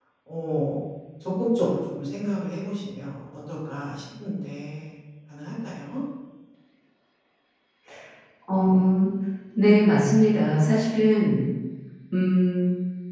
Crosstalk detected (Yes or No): No